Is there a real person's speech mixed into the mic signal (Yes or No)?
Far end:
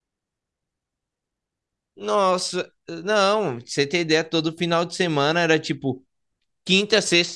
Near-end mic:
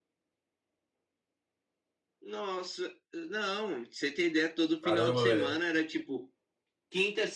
Yes